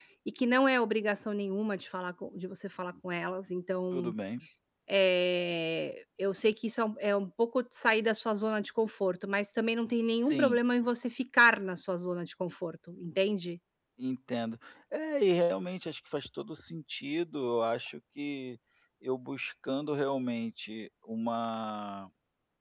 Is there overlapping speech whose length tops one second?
No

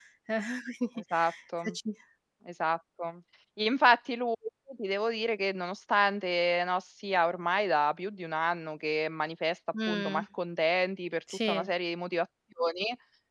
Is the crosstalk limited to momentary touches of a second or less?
Yes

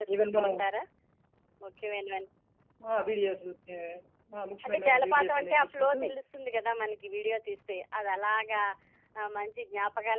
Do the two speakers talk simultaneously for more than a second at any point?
Yes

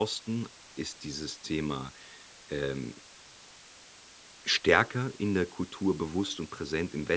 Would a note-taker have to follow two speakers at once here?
No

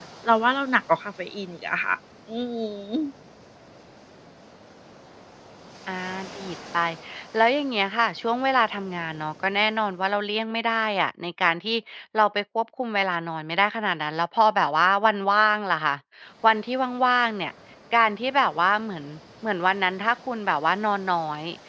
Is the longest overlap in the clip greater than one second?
No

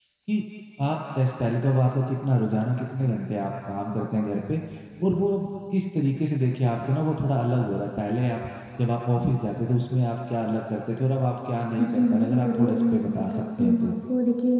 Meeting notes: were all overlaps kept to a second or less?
No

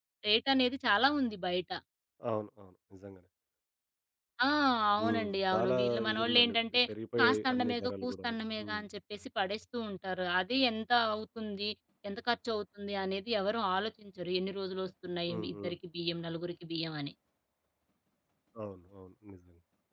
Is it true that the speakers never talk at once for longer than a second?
No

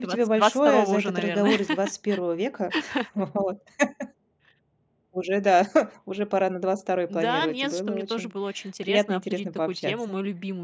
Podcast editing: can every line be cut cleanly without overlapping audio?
No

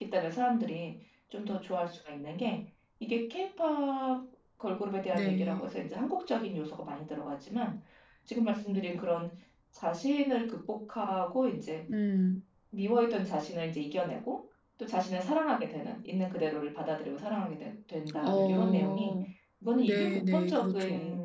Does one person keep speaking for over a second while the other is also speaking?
Yes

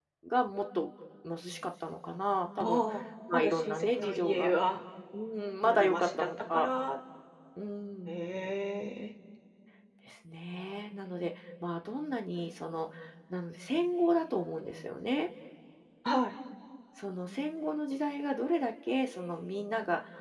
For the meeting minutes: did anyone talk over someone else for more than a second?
Yes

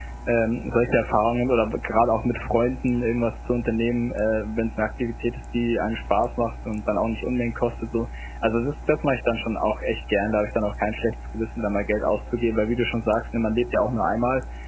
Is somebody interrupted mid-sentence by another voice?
No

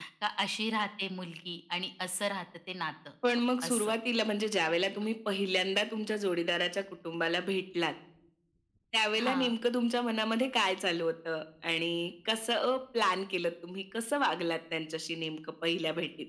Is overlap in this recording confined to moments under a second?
Yes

